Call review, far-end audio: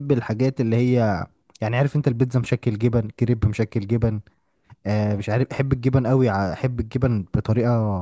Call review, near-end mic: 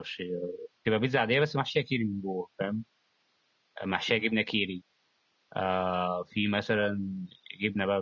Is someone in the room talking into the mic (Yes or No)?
Yes